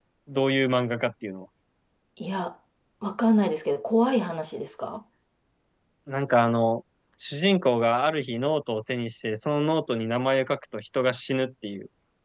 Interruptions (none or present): none